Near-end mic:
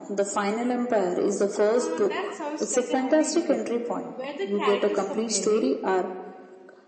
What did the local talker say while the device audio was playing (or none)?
Uh, that sounds like a heavy read. Were the characters compelling?